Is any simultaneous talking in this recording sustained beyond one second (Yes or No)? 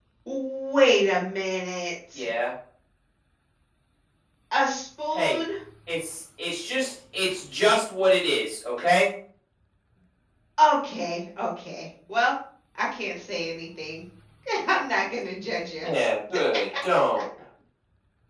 No